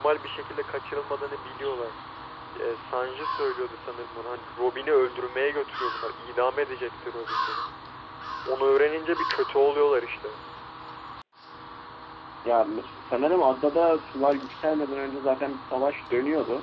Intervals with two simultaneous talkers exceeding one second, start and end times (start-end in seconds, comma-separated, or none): none